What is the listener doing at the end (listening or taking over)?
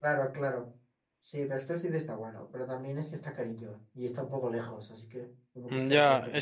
taking over